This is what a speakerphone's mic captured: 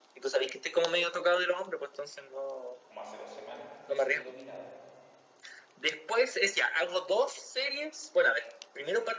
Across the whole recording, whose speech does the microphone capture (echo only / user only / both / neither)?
both